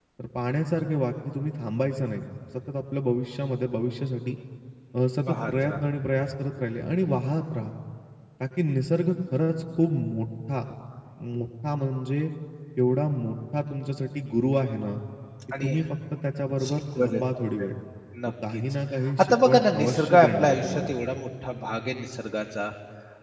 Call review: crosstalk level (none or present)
present